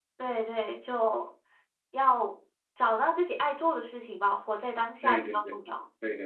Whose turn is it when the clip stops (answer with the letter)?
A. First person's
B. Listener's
B